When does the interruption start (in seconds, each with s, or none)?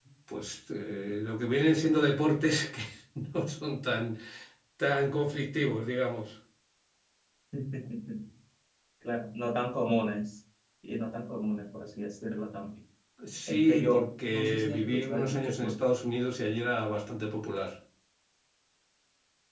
13.5 s